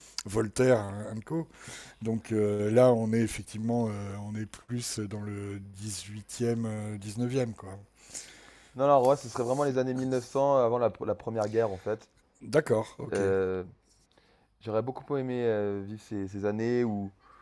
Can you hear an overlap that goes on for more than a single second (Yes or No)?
No